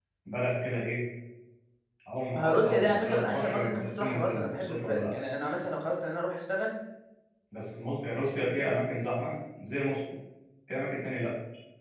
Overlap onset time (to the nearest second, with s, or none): 2 s